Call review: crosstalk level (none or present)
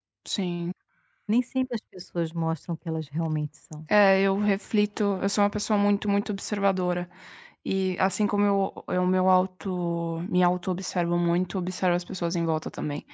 none